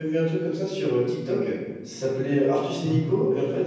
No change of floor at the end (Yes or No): Yes